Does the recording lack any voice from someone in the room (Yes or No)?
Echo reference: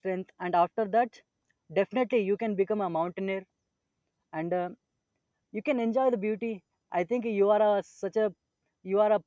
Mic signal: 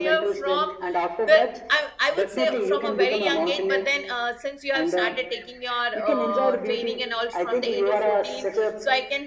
No